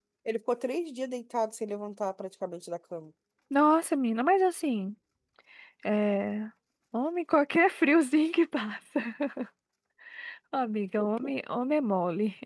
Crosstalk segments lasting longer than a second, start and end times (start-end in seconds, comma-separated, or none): none